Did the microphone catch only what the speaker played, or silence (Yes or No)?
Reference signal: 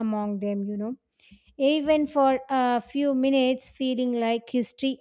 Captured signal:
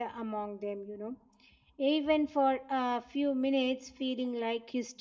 Yes